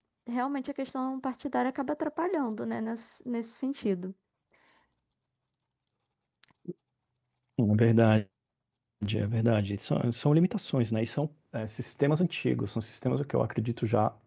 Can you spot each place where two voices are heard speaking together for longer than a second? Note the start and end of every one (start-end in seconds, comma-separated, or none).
none